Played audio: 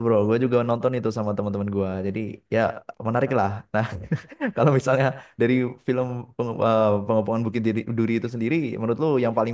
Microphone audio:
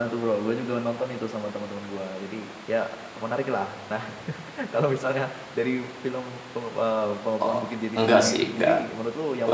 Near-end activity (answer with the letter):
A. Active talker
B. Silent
A